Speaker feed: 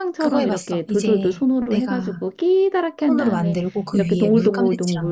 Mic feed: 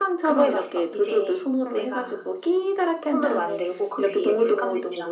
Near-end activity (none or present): none